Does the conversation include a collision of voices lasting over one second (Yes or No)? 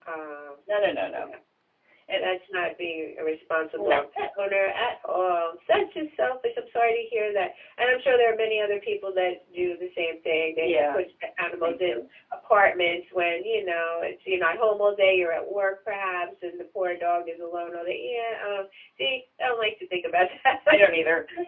No